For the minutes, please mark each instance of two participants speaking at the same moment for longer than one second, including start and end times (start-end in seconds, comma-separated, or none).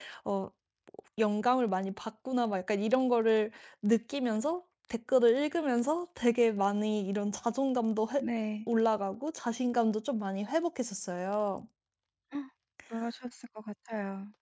none